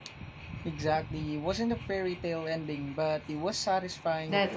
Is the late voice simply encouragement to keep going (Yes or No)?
No